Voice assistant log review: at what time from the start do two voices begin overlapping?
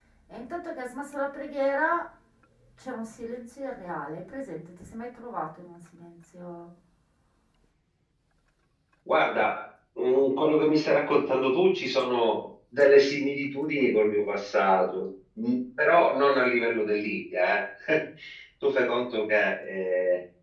none

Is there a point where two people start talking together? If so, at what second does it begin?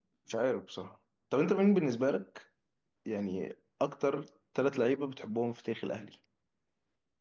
none

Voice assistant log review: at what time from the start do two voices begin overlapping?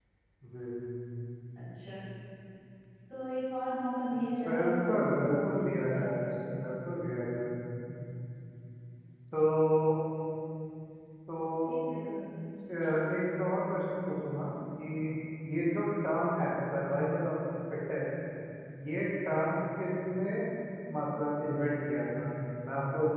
4.5 s

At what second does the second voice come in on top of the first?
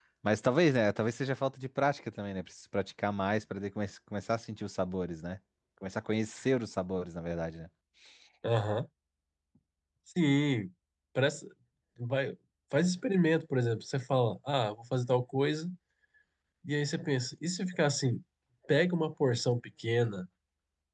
none

